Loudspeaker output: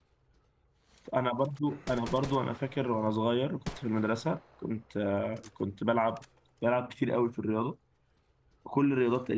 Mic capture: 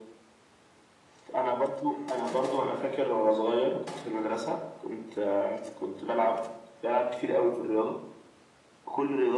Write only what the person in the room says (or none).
none